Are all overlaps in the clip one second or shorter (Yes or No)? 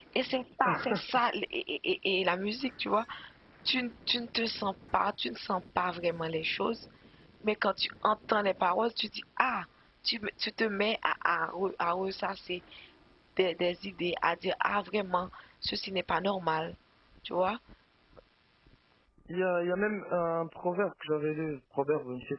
Yes